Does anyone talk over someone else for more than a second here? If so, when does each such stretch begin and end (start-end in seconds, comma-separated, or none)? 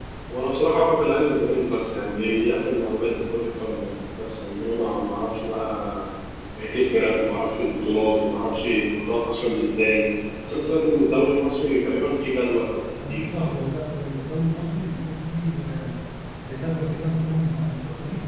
none